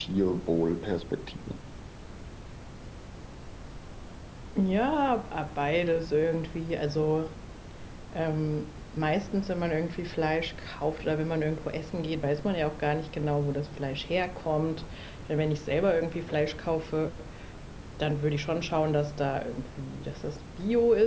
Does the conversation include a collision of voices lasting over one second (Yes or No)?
No